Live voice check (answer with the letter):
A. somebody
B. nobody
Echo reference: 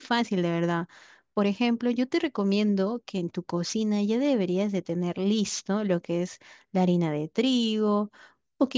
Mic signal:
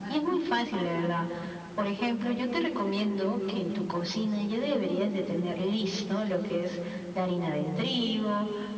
B